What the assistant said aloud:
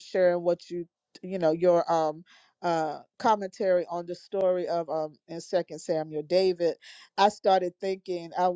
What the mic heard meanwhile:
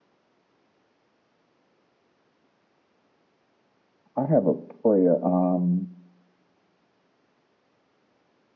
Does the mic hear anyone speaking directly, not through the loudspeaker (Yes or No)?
Yes